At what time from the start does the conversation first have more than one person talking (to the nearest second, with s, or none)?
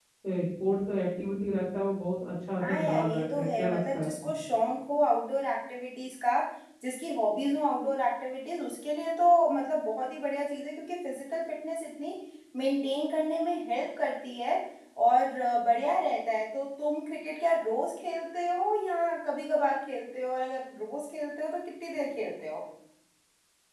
3 s